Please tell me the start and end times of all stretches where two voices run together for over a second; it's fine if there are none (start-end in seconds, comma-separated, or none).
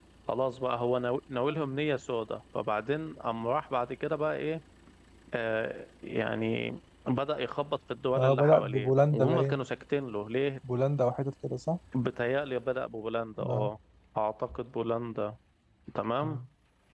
8.2-9.6